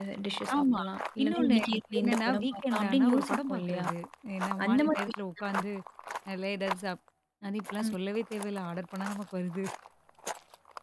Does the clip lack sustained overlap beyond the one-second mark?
No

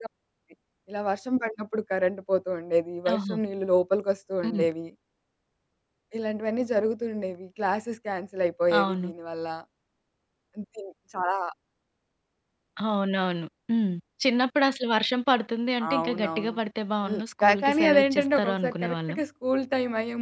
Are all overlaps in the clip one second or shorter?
No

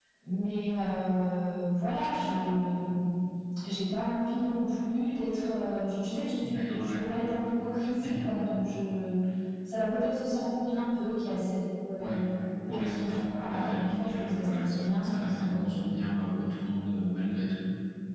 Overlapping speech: Yes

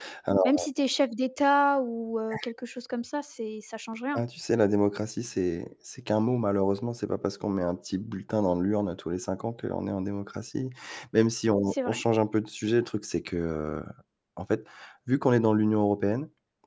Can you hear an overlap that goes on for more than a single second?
No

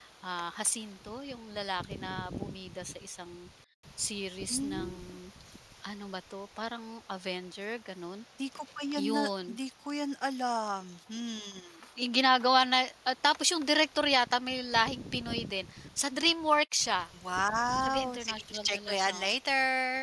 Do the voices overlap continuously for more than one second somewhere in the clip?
Yes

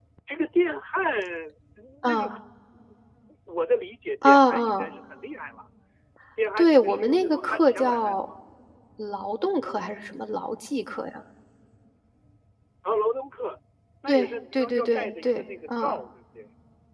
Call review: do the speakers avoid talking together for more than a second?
No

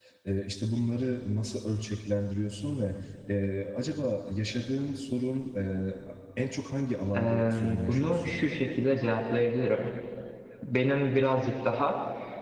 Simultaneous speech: Yes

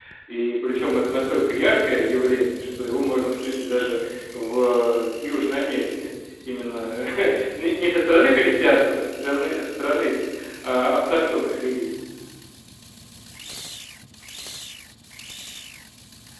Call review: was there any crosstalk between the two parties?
No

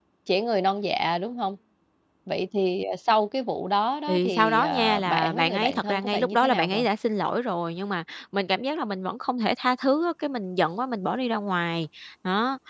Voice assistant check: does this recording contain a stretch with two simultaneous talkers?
Yes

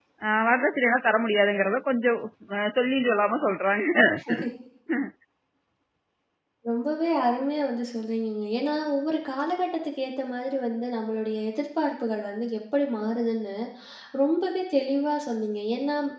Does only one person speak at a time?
Yes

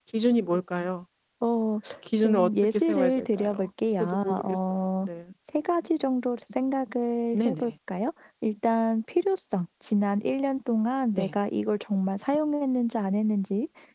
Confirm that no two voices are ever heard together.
No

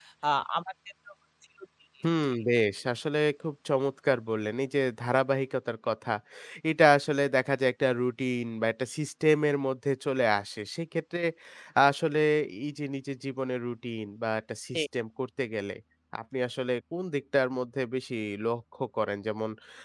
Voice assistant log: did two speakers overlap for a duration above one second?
No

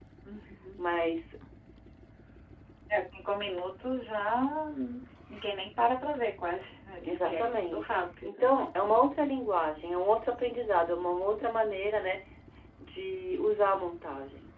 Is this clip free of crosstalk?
No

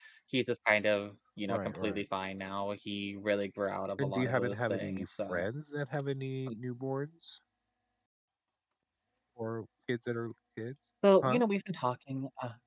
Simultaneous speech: Yes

